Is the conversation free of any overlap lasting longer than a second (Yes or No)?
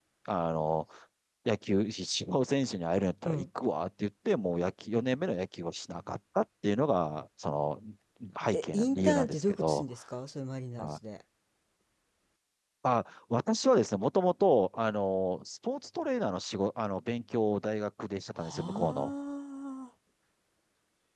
No